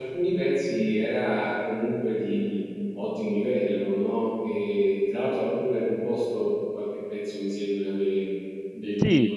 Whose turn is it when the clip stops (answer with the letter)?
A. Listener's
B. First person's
A